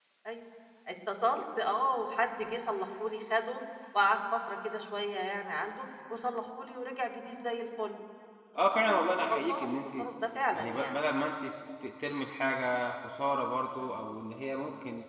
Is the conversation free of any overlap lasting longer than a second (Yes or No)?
No